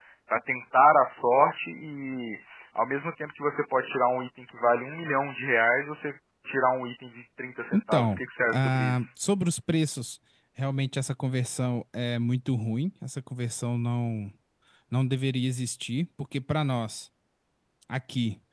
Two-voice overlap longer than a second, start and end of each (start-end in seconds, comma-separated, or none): 7.7-9.1